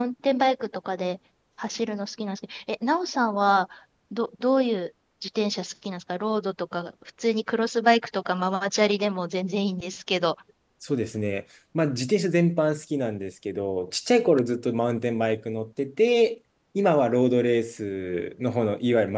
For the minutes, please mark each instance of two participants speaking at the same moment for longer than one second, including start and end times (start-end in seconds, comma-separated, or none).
none